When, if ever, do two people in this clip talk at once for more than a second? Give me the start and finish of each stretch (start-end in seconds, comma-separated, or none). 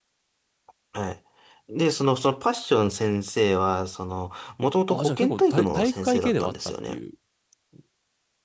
4.9-7.0